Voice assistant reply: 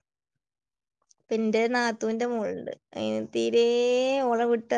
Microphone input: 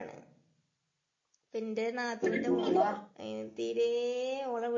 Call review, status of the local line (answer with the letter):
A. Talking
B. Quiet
A